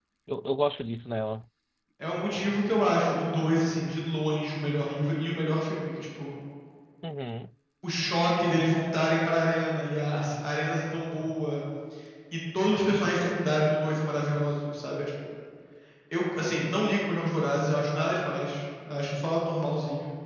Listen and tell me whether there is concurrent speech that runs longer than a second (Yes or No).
No